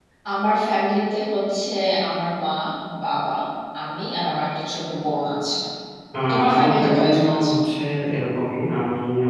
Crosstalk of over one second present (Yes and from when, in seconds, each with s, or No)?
Yes, from 6.3 s